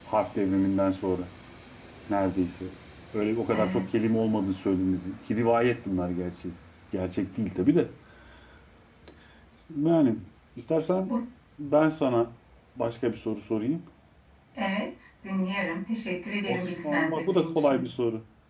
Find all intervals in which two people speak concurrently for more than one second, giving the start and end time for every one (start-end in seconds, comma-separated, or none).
16.5-17.8